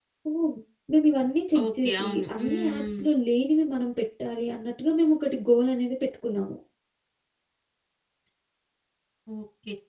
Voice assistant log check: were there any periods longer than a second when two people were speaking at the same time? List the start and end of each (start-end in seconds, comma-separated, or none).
1.6-3.1